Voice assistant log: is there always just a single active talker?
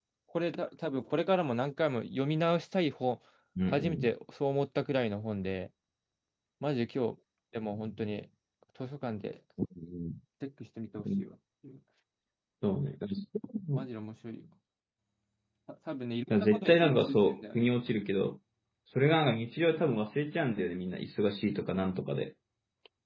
No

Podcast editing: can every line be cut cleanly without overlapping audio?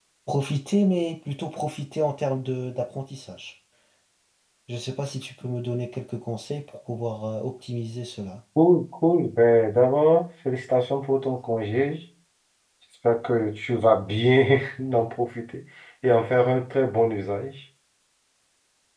Yes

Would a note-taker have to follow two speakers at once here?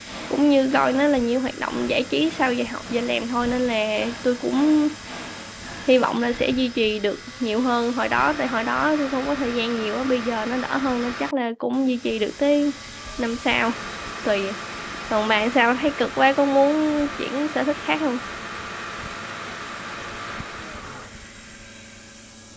No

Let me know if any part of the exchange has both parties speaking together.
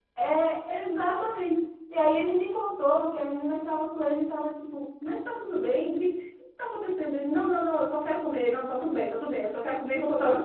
No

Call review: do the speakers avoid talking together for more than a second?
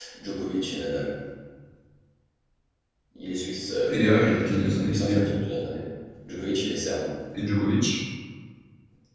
No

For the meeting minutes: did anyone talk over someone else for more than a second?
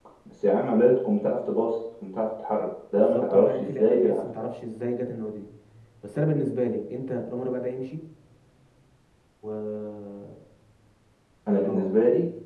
Yes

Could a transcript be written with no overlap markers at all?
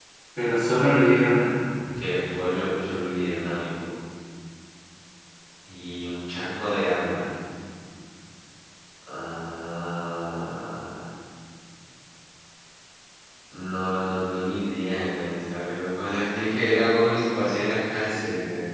Yes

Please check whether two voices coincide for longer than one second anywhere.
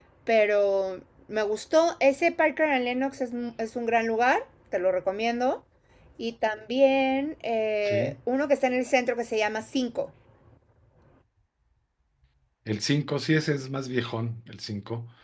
No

